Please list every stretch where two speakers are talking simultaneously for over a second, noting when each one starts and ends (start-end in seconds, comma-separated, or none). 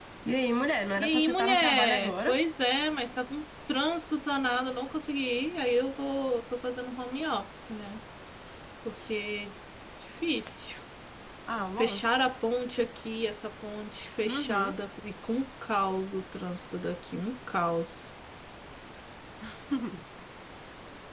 1.0-2.3